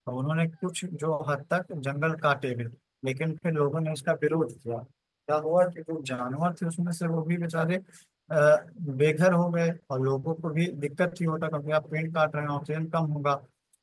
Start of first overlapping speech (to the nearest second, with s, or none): none